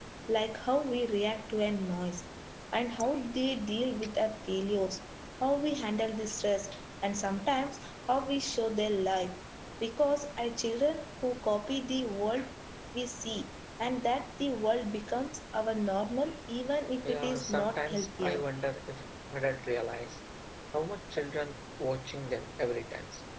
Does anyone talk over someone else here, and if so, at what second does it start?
17.0 s

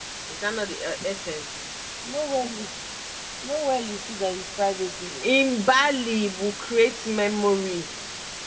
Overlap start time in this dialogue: none

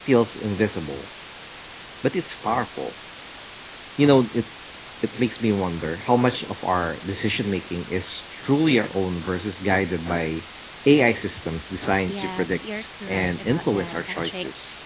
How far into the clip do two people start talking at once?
12.1 s

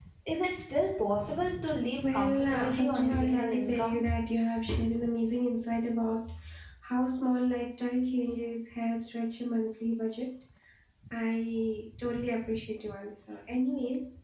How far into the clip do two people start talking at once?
2.0 s

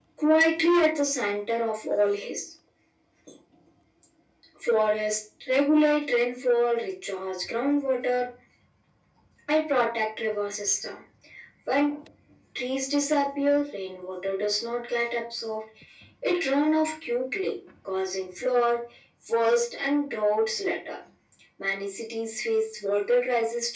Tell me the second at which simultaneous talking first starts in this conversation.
none

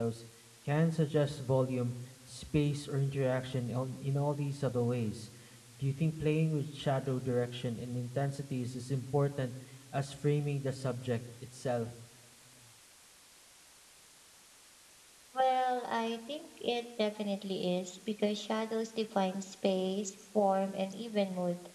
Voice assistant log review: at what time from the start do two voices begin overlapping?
none

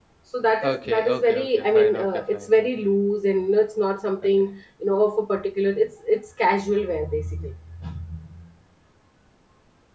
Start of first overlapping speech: 0.6 s

